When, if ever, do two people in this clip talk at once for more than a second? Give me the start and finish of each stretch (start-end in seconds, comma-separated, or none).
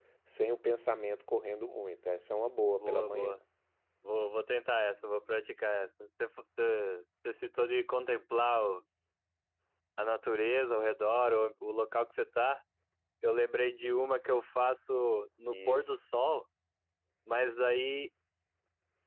none